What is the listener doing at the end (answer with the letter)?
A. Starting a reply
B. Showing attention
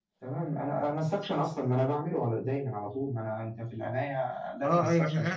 A